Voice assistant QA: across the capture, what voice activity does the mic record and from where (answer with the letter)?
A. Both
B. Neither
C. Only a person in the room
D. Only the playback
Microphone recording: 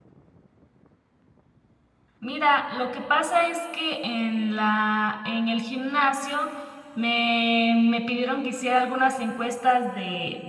C